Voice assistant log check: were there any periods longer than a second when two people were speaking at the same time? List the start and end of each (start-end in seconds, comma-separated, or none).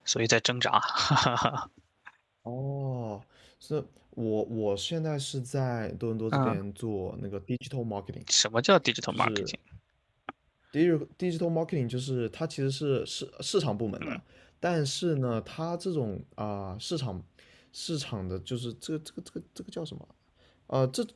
none